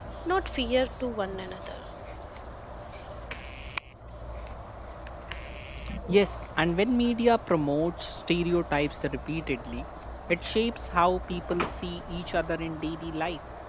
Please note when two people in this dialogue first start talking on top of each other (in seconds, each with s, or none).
none